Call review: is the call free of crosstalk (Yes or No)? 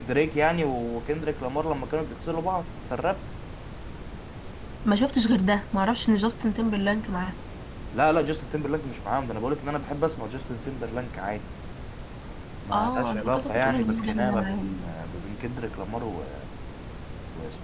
No